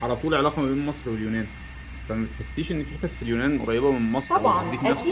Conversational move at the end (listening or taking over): taking over